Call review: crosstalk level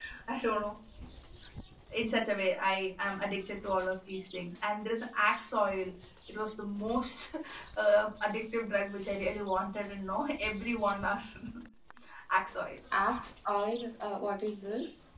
none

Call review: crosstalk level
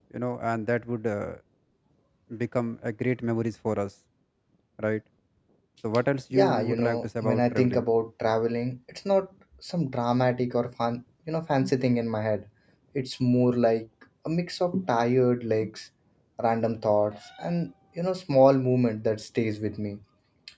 present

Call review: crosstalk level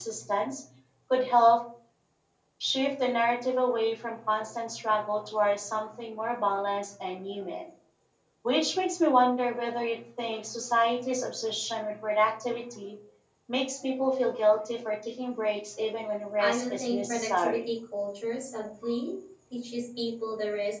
present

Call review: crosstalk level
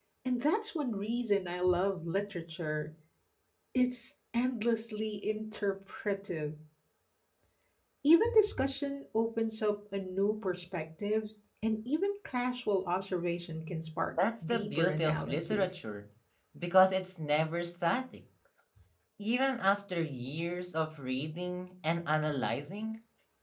present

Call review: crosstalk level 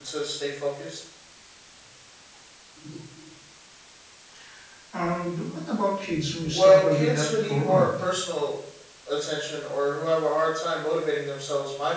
present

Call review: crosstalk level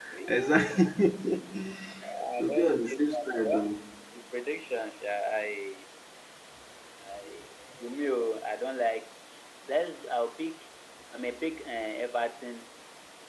present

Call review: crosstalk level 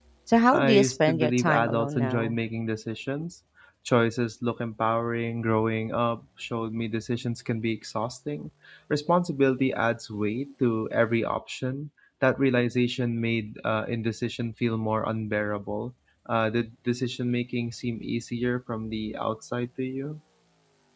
present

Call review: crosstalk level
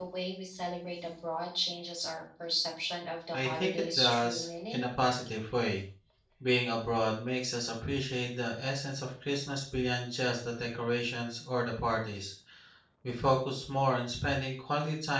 present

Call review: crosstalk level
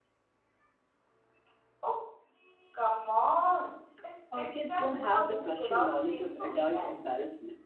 present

